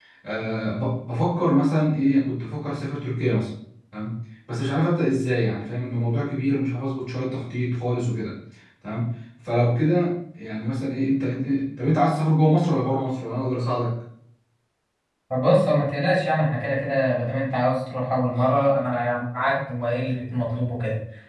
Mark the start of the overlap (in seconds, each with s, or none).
none